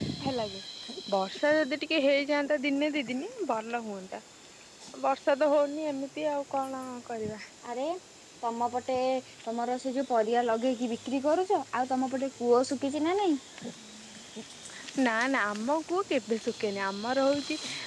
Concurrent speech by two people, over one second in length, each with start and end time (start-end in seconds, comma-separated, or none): none